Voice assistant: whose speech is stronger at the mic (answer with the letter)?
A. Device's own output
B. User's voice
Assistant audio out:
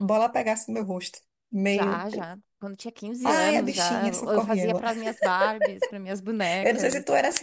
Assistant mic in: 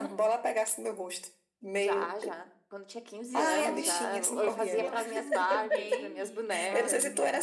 A